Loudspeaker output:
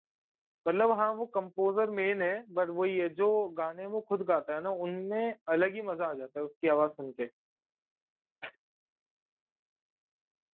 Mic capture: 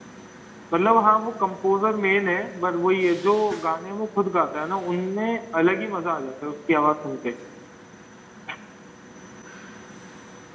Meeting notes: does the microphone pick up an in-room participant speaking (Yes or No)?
No